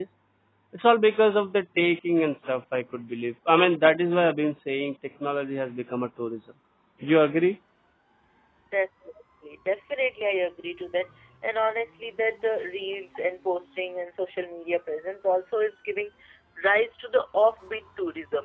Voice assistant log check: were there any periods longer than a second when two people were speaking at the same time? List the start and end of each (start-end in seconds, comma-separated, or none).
none